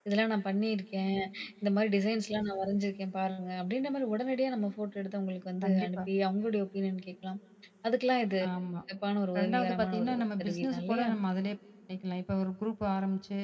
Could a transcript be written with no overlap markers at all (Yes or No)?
No